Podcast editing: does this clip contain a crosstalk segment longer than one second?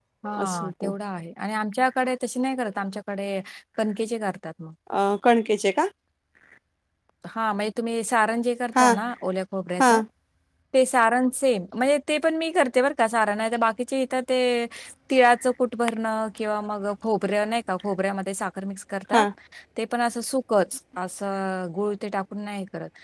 No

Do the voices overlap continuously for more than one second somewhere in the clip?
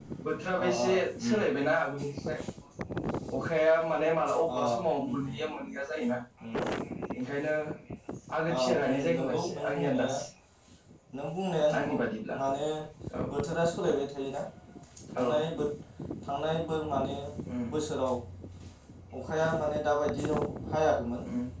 Yes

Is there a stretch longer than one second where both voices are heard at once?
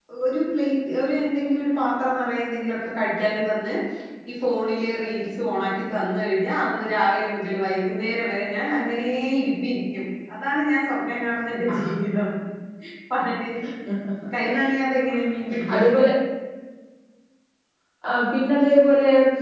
No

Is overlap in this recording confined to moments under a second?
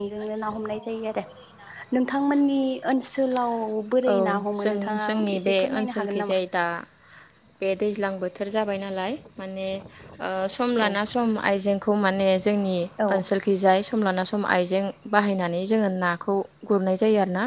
No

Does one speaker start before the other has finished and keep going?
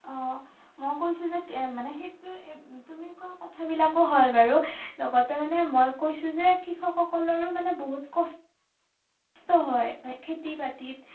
No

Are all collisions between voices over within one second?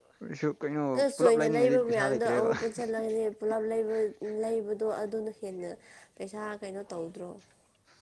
No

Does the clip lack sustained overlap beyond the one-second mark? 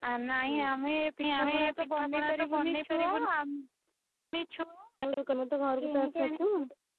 No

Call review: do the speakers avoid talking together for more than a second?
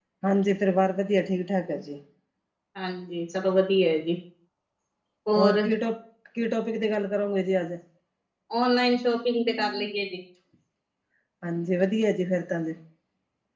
Yes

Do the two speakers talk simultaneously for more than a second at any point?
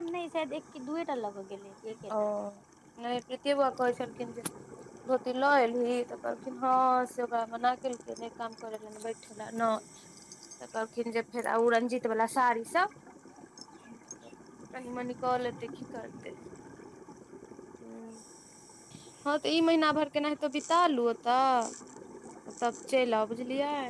No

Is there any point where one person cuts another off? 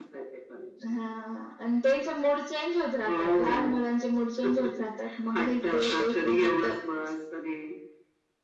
Yes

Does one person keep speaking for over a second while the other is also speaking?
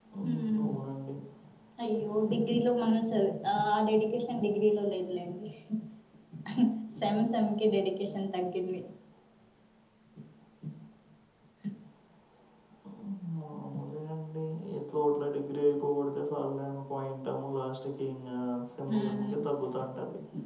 No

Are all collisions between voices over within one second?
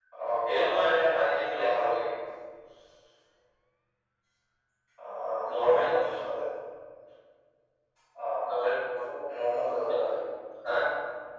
No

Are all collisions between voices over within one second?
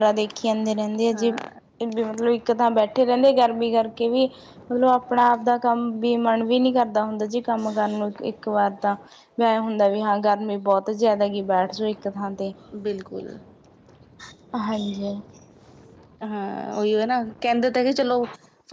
Yes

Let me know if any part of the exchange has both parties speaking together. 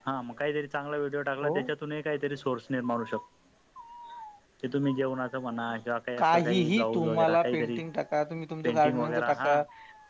Yes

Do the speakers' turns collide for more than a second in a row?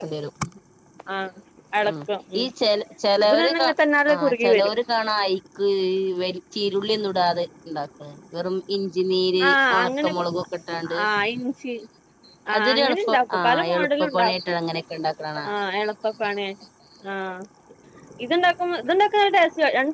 Yes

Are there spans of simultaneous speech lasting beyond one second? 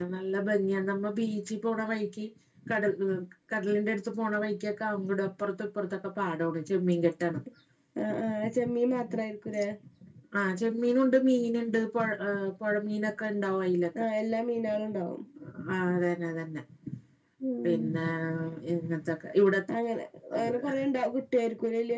No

